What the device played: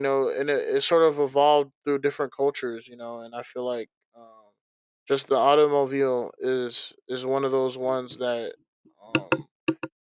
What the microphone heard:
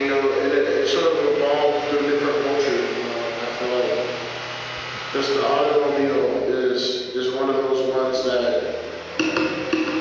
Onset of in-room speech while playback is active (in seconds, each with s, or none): none